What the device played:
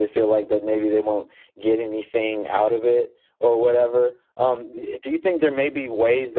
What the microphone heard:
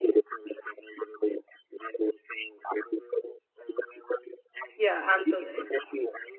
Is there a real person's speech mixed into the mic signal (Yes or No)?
Yes